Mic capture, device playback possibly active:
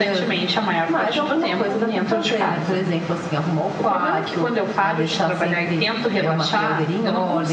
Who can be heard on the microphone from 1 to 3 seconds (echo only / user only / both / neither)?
echo only